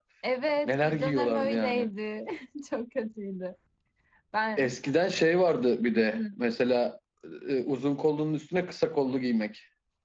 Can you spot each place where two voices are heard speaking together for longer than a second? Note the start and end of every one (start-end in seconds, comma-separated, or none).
0.6-1.9